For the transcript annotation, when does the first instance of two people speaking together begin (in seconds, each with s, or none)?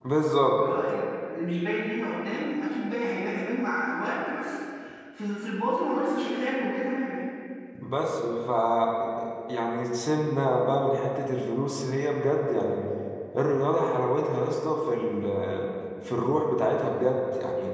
none